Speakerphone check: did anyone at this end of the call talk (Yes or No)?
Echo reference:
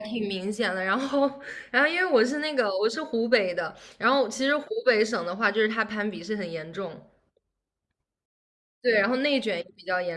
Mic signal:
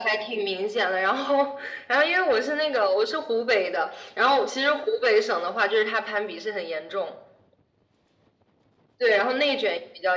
No